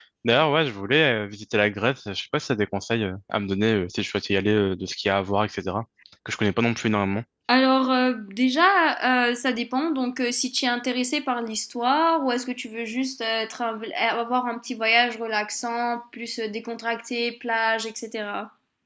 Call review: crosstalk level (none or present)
none